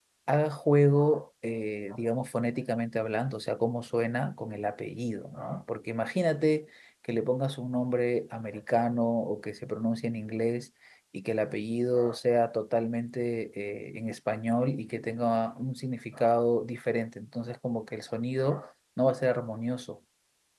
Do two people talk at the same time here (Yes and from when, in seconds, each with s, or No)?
No